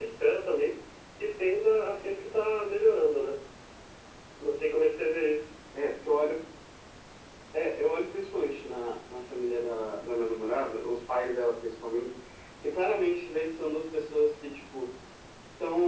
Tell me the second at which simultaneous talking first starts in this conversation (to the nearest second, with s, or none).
none